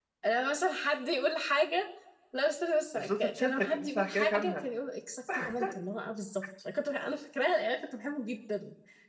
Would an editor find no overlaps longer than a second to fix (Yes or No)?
No